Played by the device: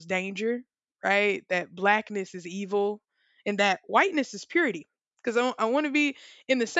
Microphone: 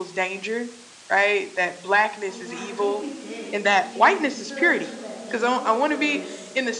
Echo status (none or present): present